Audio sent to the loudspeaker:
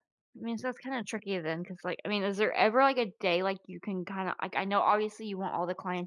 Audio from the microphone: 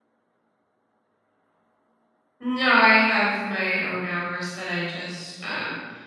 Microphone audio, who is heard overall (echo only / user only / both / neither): user only